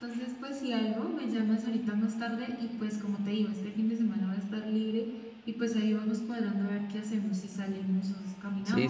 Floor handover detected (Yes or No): Yes